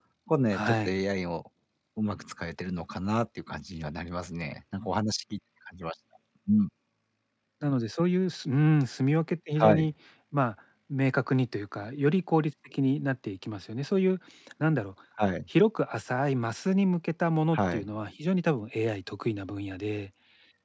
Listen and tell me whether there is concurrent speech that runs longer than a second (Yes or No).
No